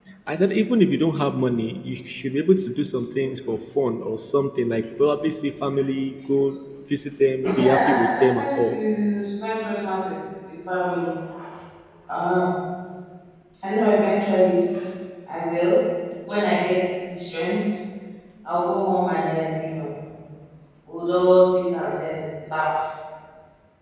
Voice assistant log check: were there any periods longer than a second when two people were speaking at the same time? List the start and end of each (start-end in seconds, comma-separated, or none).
7.6-8.8